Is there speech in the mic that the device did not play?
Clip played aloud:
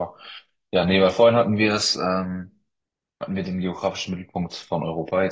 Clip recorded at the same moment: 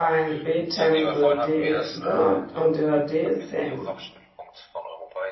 Yes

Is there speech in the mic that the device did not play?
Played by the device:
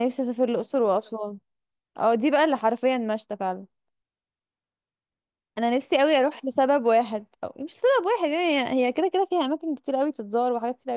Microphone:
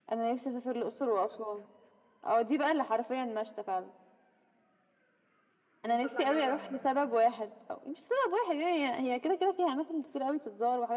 Yes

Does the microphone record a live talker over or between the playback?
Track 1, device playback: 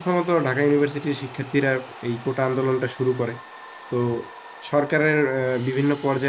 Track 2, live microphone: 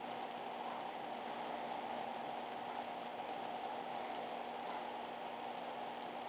No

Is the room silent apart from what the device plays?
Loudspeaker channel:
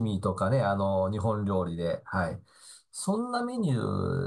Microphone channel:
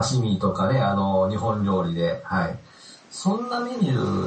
Yes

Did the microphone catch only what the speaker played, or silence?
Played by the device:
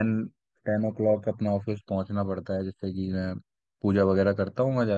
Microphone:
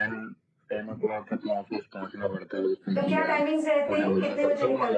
No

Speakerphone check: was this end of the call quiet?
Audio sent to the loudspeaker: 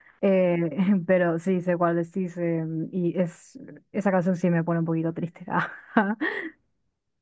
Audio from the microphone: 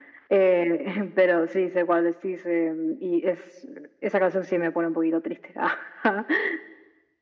Yes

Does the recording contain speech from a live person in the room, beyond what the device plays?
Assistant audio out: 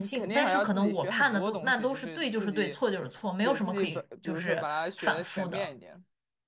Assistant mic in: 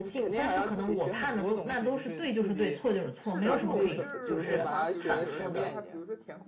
Yes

